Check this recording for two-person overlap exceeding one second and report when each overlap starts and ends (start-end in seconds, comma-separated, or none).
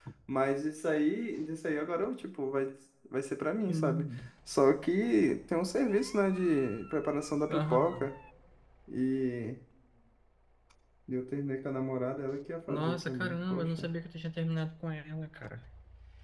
12.7-13.9